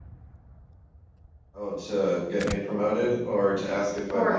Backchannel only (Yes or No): No